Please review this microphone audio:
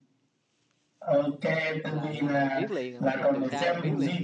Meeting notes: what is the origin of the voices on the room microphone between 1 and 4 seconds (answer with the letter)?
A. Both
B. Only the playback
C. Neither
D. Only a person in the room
A